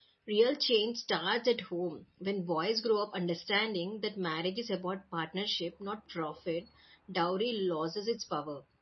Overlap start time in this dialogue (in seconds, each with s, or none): none